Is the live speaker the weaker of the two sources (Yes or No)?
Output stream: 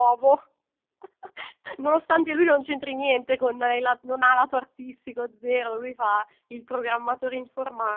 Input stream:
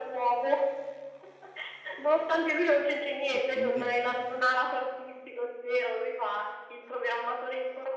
Yes